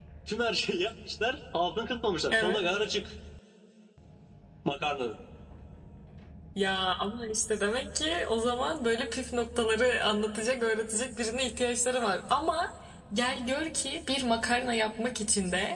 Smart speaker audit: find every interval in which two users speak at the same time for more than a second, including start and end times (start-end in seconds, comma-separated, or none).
none